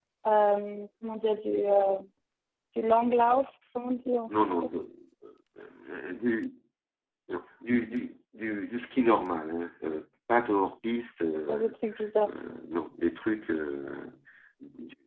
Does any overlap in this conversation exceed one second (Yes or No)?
No